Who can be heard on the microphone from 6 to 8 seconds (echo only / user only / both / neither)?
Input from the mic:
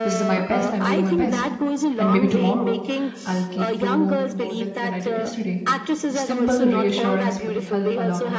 both